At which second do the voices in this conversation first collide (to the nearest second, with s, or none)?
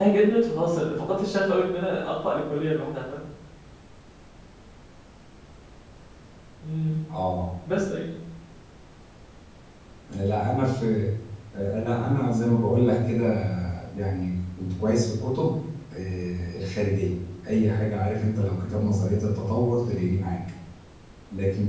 none